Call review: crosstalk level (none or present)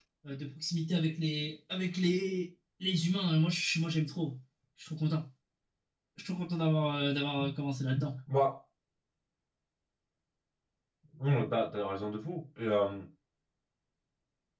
none